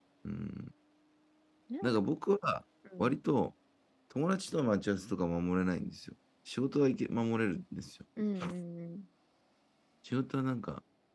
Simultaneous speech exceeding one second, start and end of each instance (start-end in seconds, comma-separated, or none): none